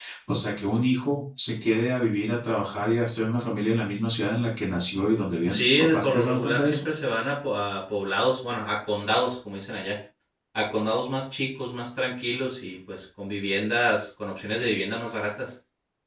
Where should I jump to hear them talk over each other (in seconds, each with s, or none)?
5.5 s